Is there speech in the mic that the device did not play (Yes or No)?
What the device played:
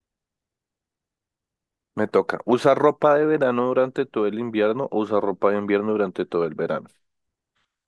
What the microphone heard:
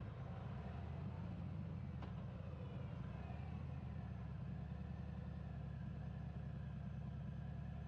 No